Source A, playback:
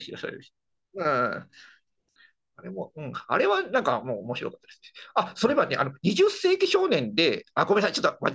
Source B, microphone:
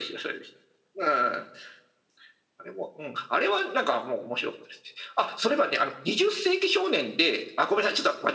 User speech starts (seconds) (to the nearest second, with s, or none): none